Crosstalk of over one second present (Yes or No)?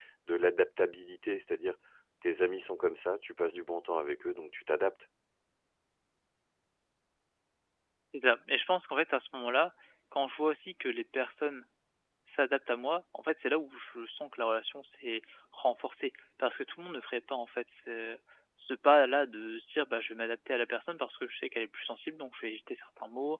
No